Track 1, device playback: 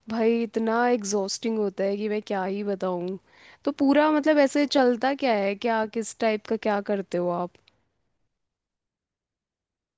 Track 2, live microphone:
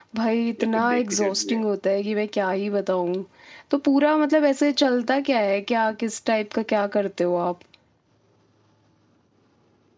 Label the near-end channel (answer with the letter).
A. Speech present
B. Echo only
A